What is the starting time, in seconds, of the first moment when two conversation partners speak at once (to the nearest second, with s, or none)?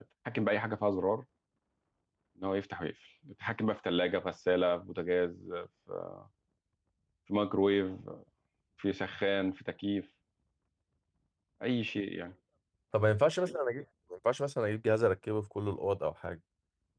none